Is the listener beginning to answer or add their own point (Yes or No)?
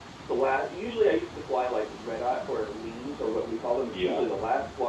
No